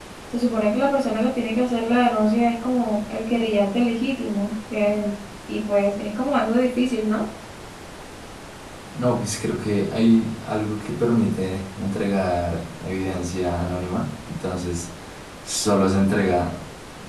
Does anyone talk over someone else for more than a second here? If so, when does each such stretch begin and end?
none

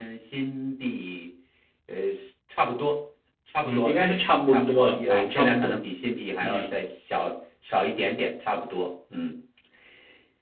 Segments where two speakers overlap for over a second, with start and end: 3.6-5.8

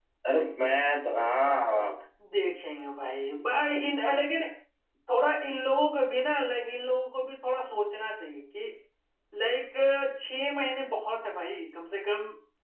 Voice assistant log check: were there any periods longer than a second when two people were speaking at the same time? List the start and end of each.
none

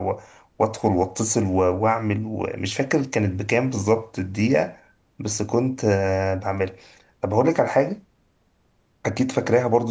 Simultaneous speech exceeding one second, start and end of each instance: none

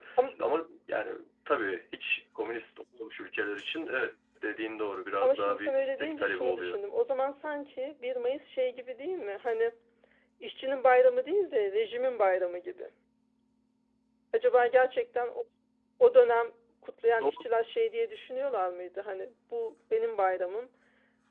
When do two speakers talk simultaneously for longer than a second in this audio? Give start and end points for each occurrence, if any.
5.2-6.8

